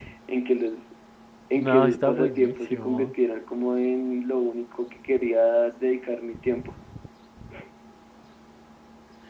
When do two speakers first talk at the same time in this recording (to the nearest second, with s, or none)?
2 s